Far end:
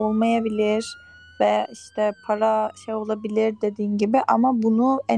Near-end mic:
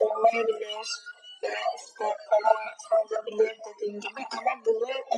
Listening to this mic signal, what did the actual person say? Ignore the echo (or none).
none